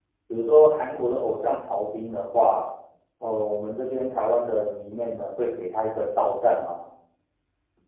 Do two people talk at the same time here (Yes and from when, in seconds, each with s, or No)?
No